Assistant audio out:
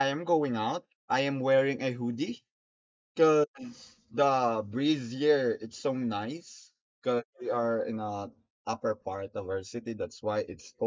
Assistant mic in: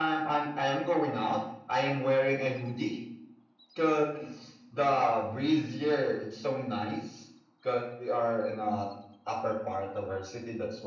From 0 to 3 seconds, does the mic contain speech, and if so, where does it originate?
echo only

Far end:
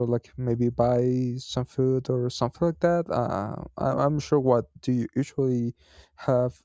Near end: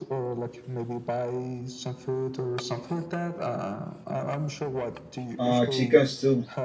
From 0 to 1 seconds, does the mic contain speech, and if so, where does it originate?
echo only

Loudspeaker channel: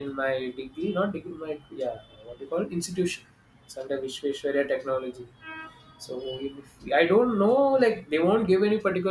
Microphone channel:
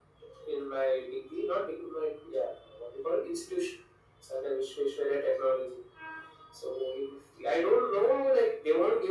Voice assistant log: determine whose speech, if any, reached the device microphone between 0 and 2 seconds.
echo only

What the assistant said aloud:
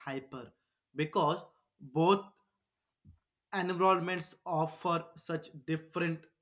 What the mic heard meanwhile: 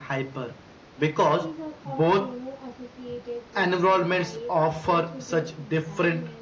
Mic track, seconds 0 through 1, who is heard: echo only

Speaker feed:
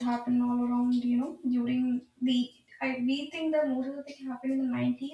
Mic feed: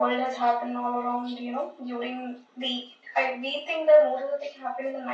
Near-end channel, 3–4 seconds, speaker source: echo only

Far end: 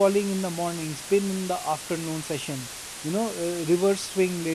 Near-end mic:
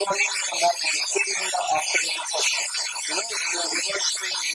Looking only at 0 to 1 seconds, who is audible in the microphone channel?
echo only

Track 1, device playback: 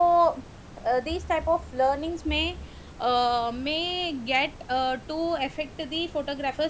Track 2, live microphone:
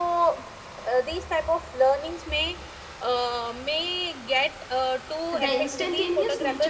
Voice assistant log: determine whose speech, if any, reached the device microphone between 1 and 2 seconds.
echo only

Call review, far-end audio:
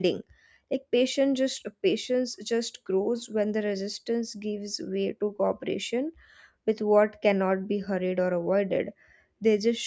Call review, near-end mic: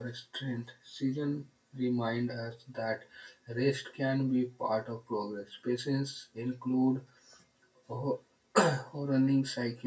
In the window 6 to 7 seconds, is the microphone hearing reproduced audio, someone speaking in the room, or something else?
user only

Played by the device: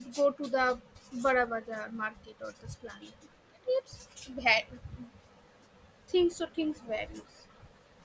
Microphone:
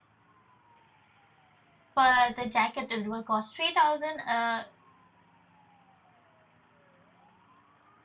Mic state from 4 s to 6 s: user only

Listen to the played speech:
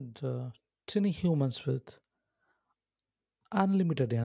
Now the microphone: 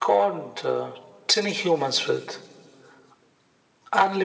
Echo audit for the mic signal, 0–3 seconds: echo only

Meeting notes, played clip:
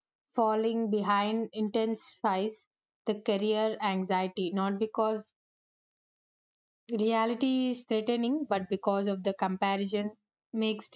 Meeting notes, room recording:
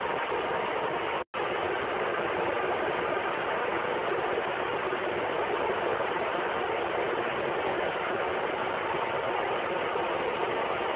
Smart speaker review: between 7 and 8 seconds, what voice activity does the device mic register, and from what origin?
neither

